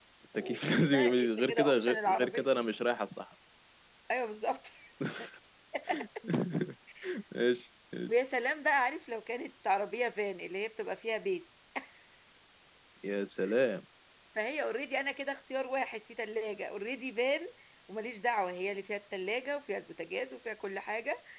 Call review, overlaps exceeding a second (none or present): present